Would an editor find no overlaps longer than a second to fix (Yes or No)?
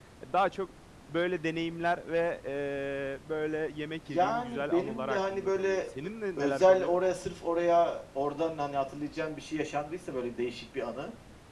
No